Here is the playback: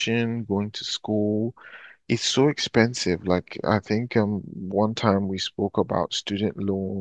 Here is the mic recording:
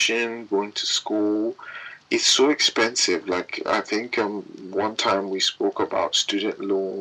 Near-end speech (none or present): none